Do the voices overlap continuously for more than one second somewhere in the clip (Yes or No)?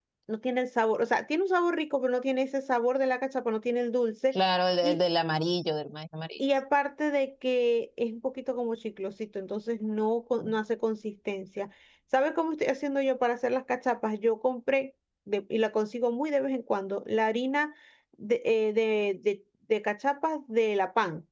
No